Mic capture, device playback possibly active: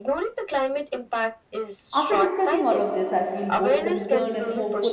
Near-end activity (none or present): present